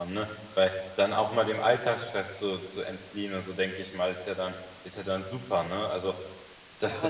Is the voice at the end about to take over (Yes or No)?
Yes